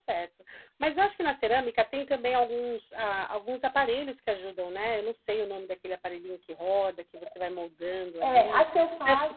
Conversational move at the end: taking over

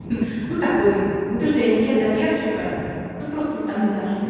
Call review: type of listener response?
taking over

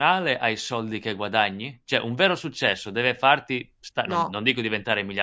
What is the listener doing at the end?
listening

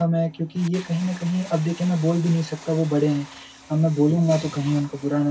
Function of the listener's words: listening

